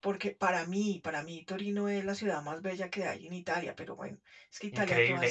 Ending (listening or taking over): taking over